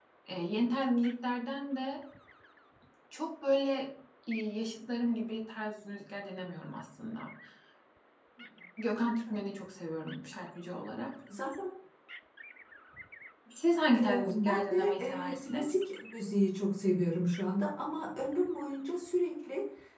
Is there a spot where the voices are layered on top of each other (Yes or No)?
Yes